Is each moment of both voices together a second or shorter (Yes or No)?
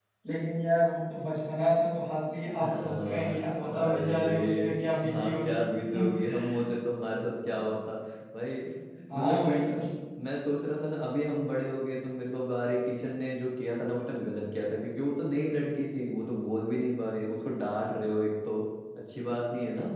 No